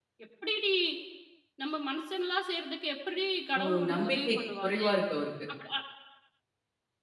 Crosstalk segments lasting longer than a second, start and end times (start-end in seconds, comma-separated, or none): 3.5-4.9